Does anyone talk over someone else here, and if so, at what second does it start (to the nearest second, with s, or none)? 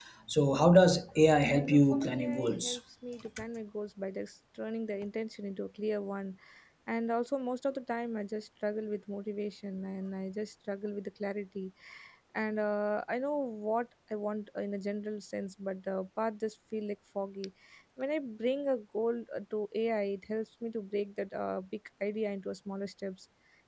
2 s